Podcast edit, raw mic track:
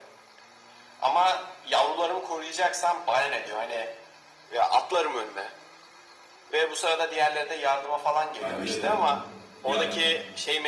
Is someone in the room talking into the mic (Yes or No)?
Yes